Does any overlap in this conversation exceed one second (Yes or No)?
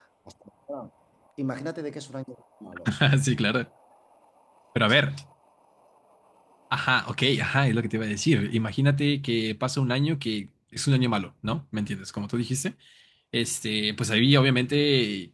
No